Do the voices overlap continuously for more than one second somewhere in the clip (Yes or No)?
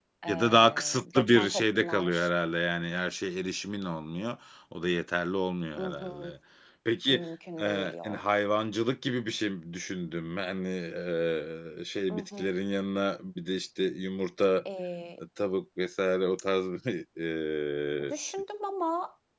Yes